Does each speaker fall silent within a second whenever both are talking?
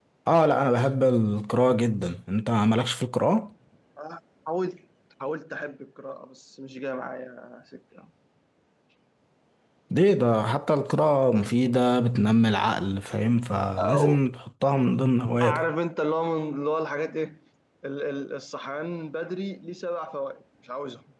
Yes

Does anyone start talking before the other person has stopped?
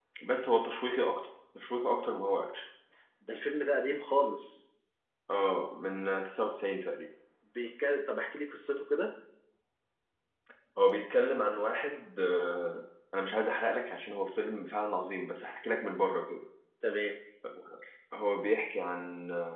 No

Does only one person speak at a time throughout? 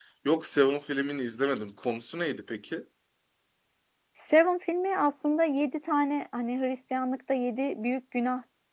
Yes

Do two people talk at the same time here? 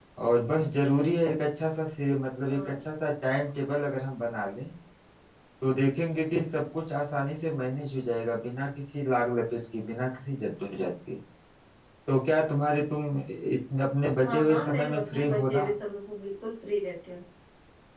Yes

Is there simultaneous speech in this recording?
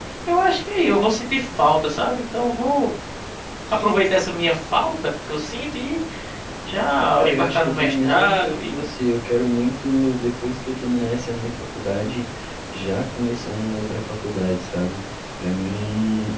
Yes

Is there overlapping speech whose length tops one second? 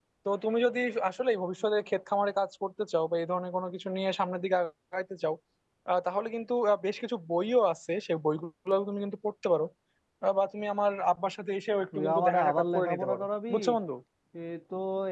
Yes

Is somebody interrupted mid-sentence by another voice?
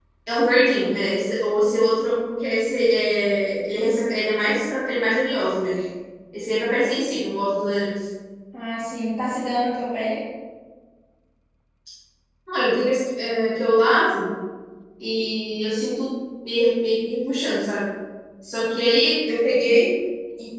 No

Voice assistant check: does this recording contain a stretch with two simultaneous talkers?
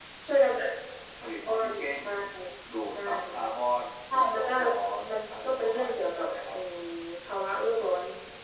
Yes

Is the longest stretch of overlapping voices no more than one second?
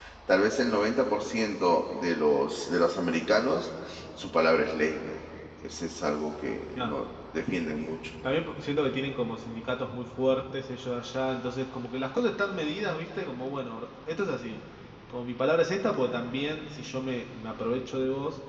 Yes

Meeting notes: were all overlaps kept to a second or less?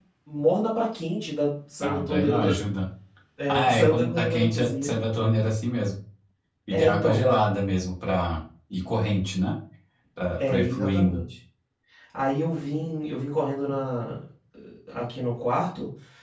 No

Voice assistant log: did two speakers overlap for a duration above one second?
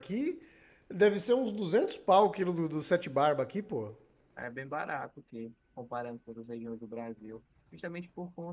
No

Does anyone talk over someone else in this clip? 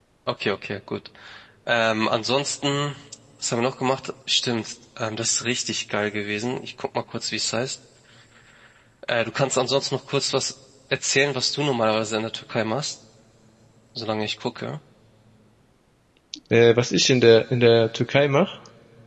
No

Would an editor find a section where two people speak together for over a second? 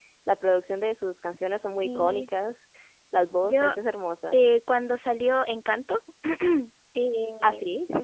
No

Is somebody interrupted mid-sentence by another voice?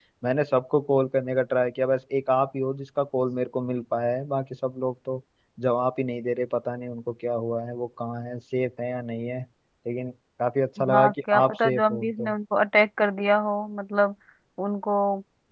Yes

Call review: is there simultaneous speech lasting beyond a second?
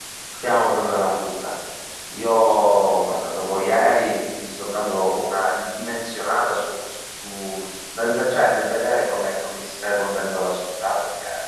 No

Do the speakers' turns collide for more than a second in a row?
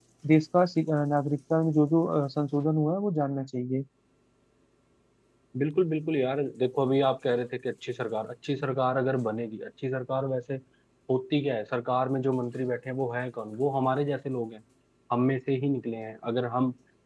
No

